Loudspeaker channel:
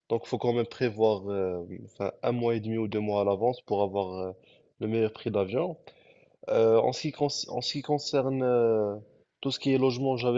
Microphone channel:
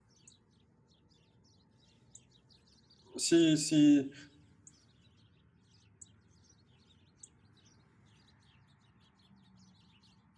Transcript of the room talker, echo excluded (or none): Si, si,